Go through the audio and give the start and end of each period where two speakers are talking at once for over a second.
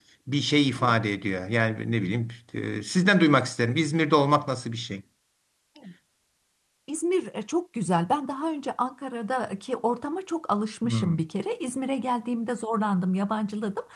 none

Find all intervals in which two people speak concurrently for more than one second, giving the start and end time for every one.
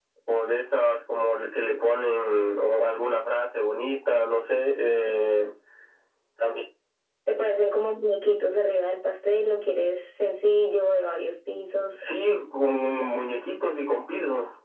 none

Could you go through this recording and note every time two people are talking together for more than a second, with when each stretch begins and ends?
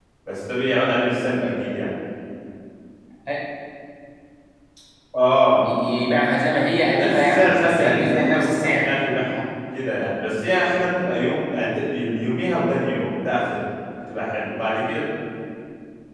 6.9-8.9

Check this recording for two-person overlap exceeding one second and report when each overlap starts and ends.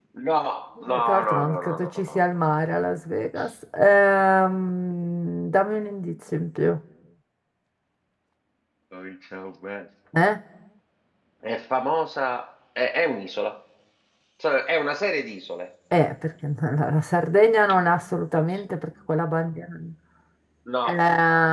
0.9-2.2

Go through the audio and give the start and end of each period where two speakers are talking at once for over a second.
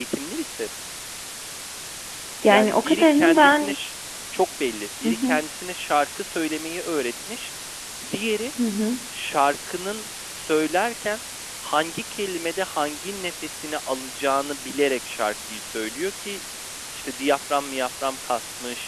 2.5-3.8

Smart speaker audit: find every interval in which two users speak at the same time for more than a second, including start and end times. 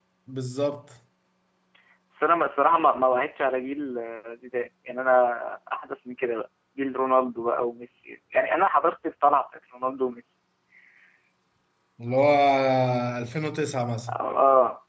none

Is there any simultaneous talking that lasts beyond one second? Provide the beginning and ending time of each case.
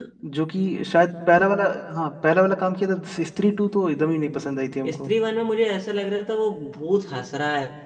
none

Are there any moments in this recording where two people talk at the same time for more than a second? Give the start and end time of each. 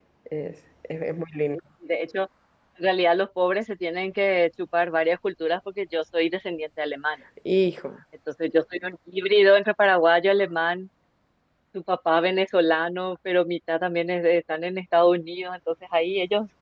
none

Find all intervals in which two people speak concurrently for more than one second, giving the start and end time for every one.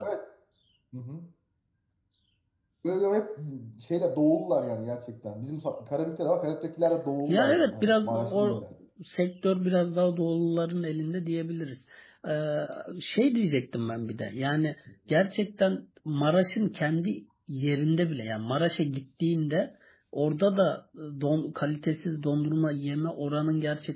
7.3-8.6

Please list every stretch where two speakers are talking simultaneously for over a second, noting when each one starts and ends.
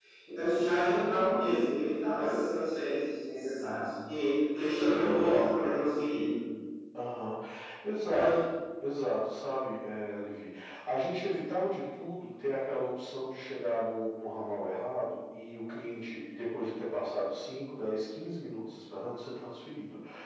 none

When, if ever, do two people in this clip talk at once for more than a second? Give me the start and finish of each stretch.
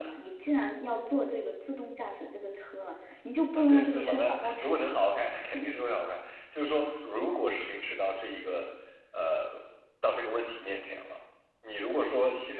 3.5-5.0

